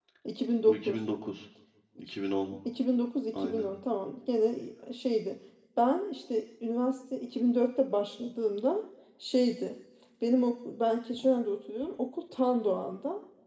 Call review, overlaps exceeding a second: none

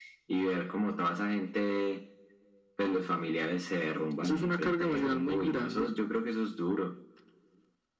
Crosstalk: present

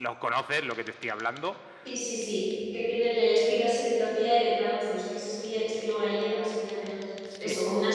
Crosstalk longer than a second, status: none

